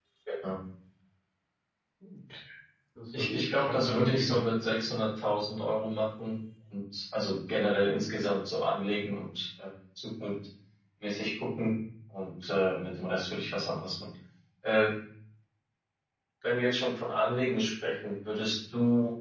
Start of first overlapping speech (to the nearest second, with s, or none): 3 s